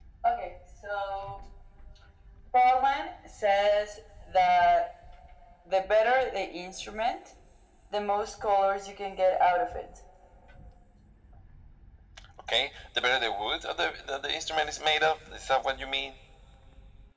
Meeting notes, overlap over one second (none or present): none